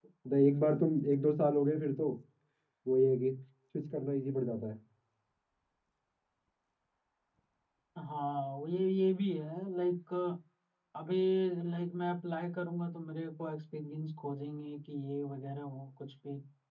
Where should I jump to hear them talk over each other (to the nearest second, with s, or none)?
none